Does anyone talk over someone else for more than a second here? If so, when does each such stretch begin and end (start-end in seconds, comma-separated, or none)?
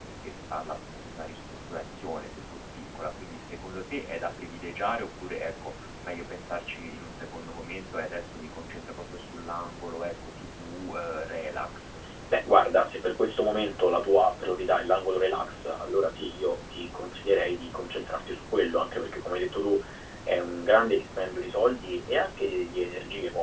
none